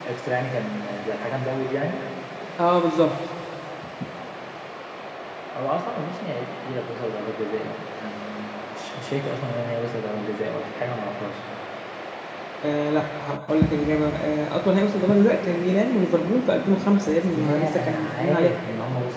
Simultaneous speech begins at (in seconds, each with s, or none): 17.3 s